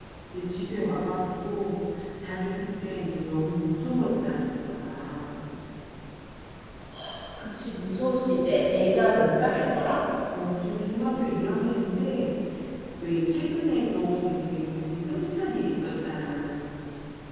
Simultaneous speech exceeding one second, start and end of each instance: none

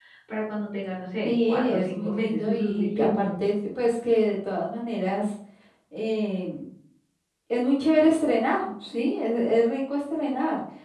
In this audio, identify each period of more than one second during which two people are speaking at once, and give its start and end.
1.2-3.3

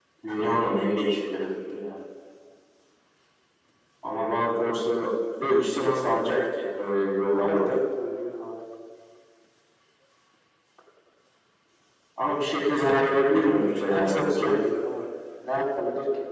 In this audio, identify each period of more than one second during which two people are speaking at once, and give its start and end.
13.3-14.6

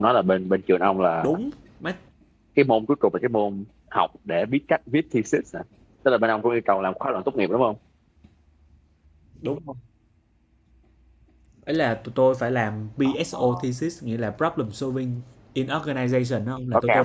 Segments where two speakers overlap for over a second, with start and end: none

